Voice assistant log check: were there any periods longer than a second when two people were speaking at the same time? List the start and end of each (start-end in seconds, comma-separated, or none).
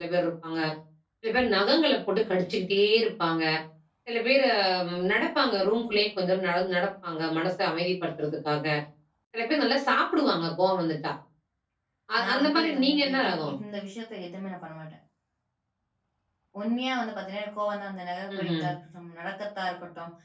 12.2-13.5